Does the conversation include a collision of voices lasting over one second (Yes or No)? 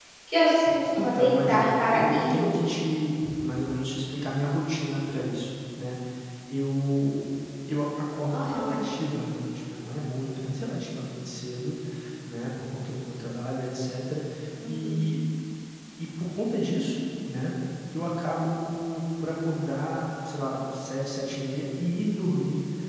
Yes